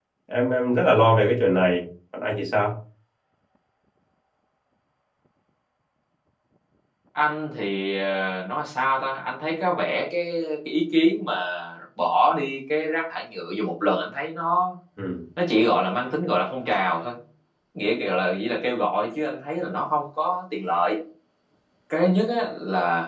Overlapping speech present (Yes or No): No